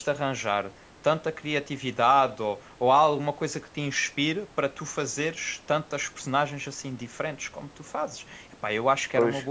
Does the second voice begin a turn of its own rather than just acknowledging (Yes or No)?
No